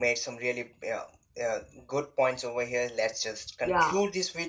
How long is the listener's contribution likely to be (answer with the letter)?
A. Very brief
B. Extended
A